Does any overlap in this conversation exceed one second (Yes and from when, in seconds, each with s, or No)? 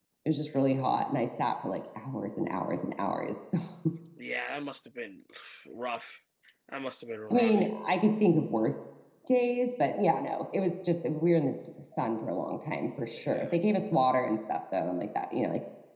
No